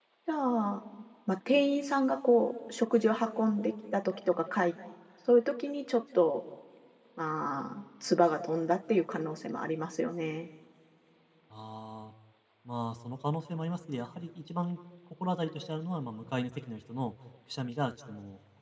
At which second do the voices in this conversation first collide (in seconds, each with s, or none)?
none